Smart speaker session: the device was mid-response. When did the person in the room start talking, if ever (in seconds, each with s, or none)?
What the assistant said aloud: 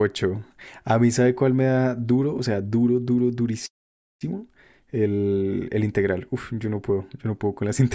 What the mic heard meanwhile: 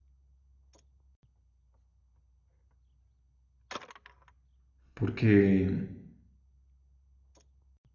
4.9 s